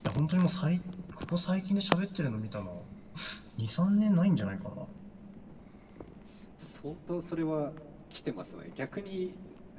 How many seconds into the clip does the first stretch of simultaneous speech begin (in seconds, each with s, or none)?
none